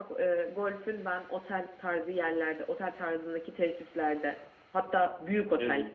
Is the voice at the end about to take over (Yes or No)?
No